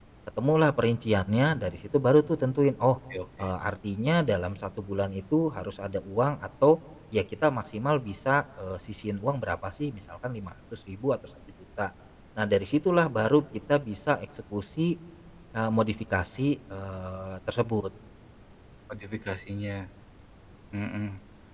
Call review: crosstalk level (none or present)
none